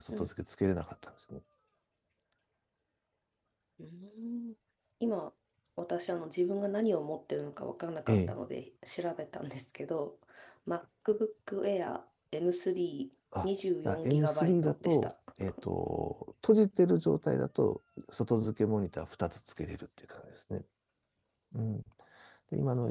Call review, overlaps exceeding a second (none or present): present